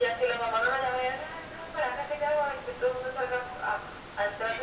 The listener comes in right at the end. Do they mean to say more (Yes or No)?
Yes